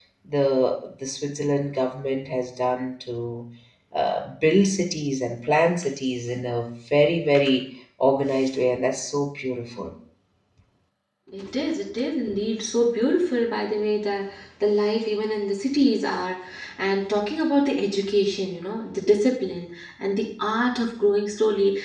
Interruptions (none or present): none